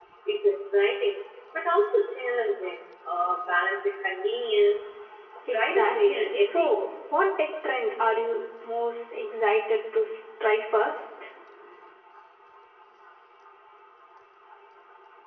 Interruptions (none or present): present